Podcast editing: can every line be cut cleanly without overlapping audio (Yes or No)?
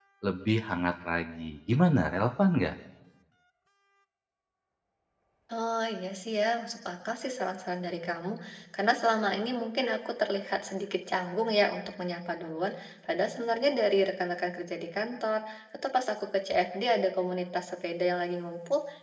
Yes